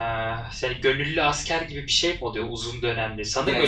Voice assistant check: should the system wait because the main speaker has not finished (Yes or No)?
Yes